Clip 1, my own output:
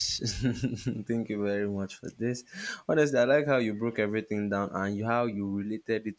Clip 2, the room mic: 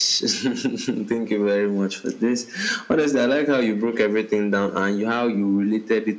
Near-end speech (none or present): none